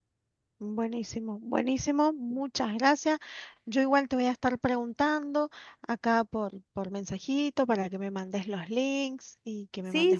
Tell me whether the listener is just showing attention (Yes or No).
No